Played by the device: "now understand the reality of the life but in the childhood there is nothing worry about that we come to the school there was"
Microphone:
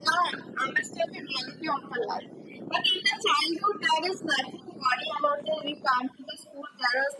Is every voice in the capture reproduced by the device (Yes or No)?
Yes